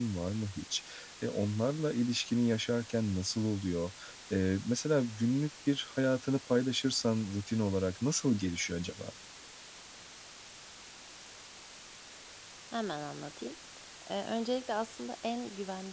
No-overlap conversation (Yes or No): Yes